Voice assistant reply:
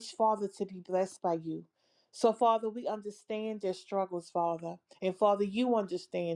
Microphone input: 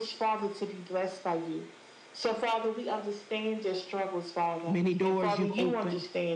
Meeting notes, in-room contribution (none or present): present